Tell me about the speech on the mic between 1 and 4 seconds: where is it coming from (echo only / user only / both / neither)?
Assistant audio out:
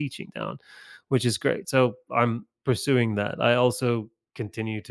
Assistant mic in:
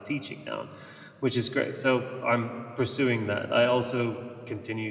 echo only